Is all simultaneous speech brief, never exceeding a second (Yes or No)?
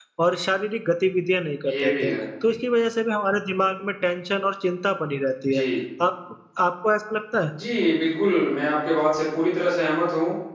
Yes